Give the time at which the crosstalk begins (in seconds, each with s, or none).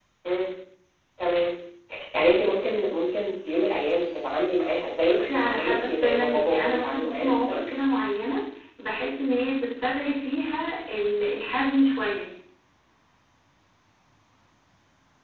5.0 s